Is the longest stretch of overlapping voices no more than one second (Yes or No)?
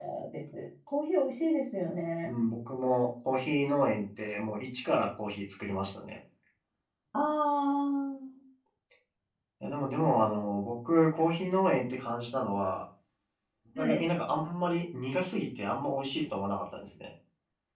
Yes